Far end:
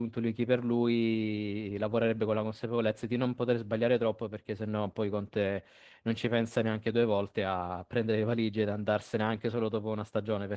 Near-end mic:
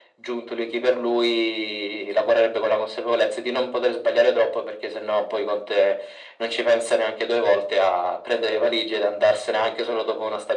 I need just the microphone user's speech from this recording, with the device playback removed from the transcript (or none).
none